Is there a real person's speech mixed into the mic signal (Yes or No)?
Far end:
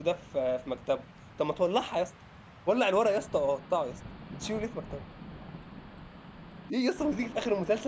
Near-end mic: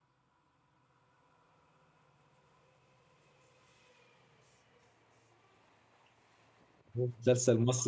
Yes